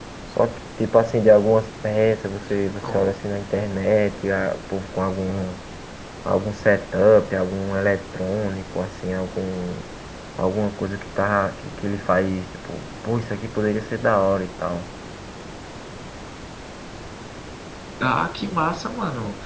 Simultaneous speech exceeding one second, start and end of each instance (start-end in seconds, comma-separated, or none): none